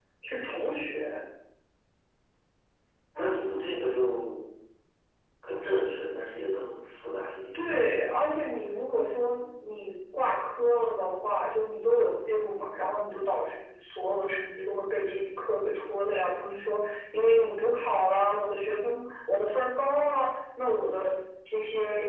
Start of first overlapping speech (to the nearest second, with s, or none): none